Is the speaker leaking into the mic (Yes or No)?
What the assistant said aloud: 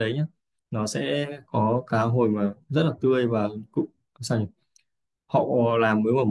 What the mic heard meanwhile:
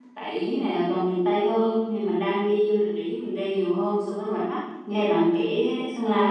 No